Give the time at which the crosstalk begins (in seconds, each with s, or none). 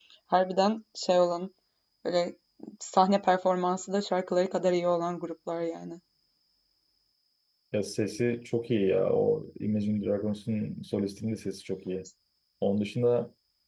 none